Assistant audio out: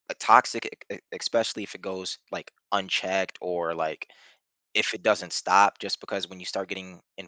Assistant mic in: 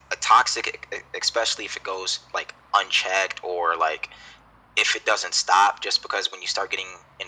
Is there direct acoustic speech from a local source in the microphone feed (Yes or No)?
No